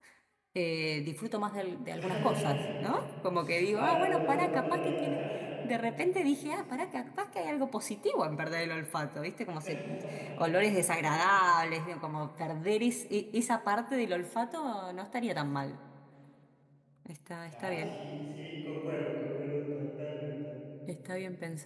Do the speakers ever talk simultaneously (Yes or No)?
Yes